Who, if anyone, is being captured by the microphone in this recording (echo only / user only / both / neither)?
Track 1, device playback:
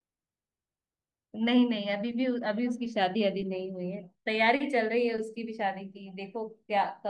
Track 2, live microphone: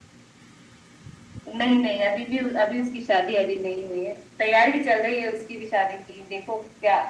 echo only